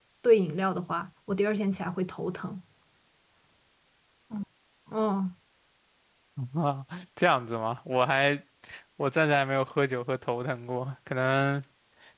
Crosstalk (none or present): none